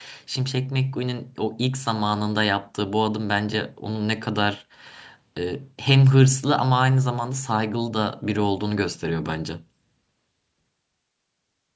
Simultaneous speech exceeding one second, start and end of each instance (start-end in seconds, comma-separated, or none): none